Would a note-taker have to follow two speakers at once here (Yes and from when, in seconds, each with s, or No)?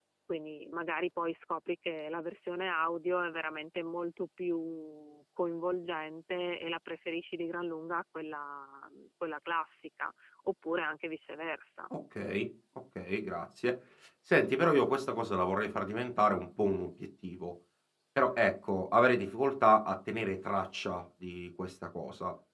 No